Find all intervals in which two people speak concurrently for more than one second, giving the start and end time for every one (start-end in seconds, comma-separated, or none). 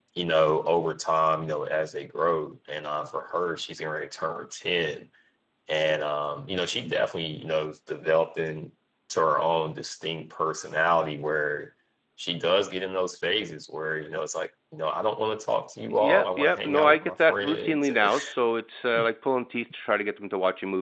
15.9-18.1